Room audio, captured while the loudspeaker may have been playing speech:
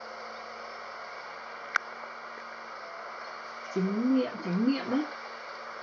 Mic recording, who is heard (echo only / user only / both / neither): user only